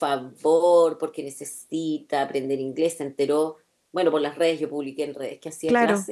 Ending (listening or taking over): listening